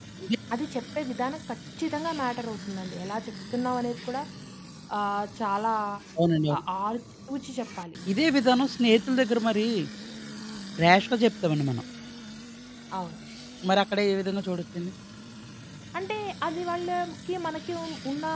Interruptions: none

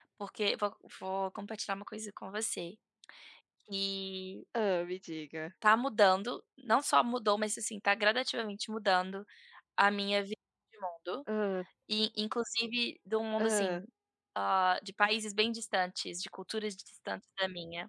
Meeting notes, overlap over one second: none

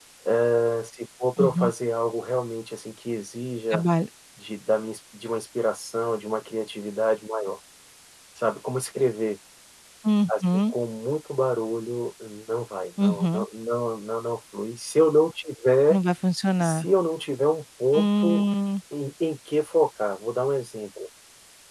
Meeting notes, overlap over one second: none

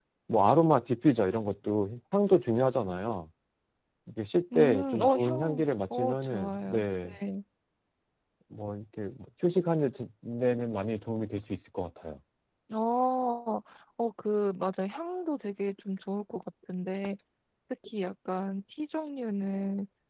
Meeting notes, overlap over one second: present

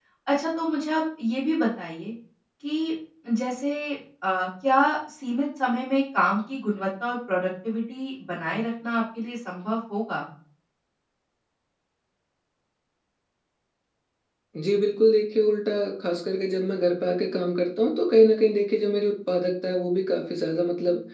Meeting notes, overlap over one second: none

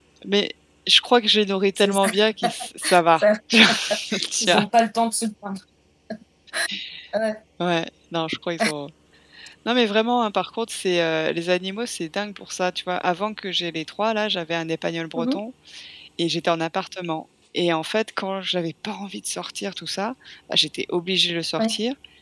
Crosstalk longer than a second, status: none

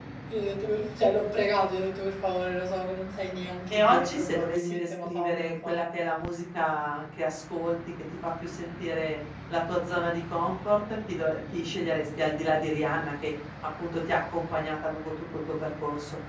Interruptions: present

